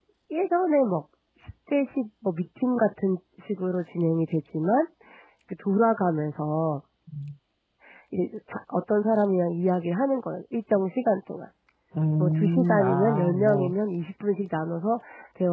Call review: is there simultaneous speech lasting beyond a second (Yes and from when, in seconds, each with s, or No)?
Yes, from 12.2 s